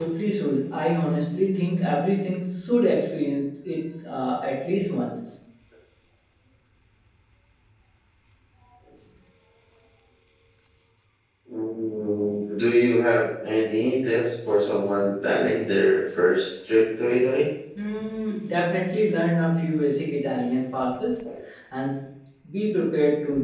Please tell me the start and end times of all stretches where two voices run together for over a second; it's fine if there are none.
none

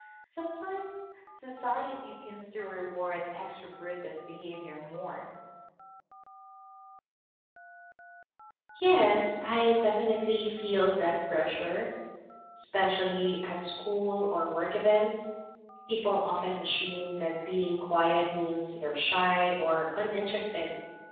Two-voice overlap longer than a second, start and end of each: none

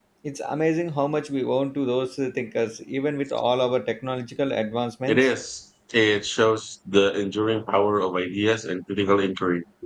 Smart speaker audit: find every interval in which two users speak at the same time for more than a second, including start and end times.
none

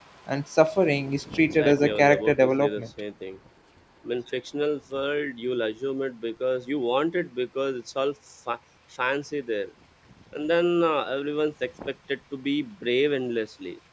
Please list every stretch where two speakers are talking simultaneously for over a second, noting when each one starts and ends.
1.5-2.8

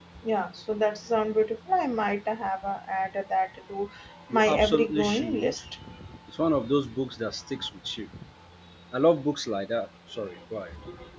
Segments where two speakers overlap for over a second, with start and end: 4.3-5.6

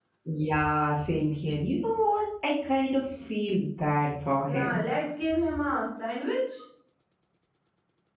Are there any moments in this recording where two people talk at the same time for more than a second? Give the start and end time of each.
none

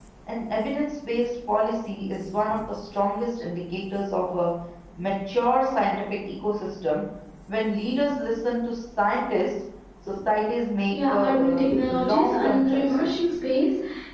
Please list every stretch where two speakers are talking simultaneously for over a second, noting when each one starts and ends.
10.9-13.2

